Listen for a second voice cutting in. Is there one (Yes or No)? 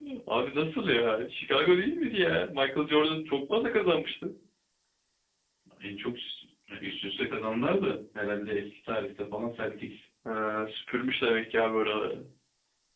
No